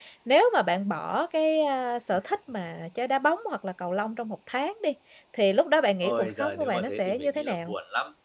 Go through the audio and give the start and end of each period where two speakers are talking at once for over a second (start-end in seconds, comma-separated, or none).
6.0-7.7